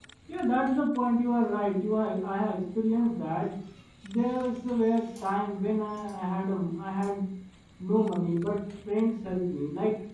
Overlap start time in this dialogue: none

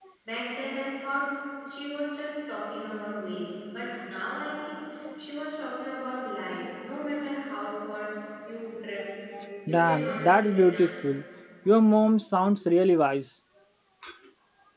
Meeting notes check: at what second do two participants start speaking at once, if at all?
9.7 s

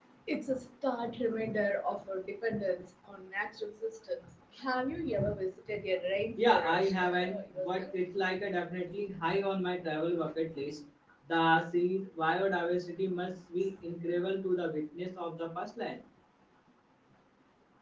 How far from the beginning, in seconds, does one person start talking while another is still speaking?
6.4 s

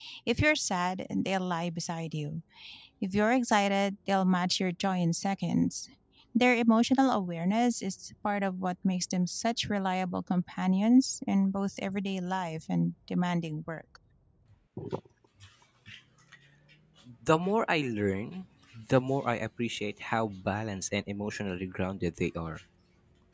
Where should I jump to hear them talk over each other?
none

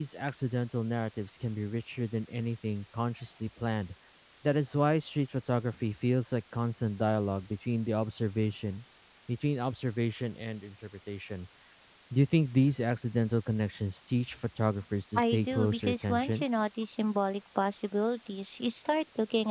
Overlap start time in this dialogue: 15.2 s

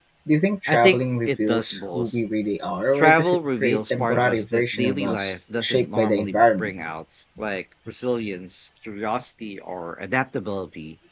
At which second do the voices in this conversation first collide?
0.7 s

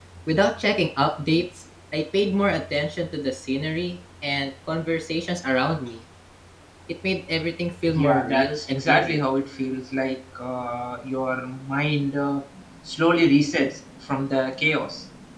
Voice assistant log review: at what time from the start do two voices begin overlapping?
7.9 s

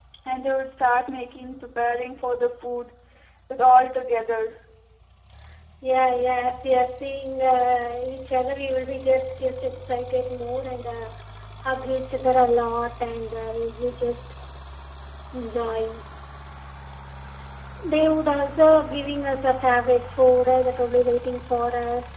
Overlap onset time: none

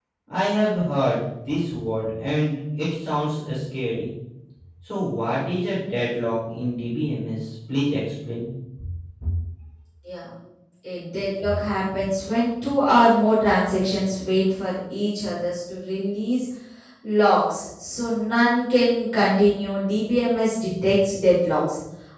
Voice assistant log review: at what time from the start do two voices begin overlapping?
none

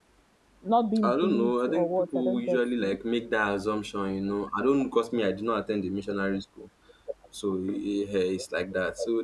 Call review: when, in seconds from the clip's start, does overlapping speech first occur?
1.0 s

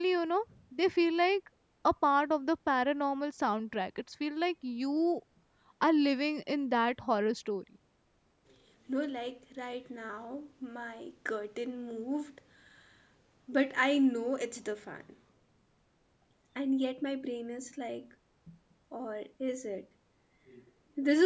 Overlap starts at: none

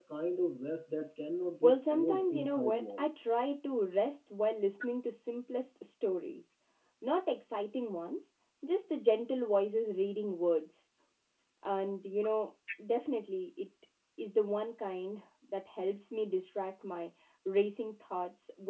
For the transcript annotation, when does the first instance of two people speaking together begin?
1.6 s

